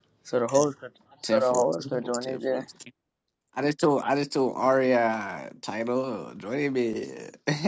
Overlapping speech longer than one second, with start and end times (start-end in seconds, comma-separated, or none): 1.2-2.6